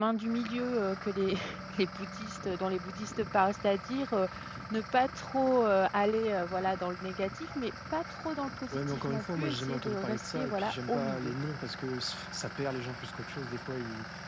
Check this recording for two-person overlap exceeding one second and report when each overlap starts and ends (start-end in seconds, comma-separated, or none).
8.7-11.3